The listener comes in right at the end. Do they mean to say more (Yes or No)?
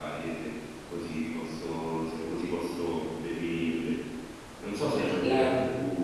No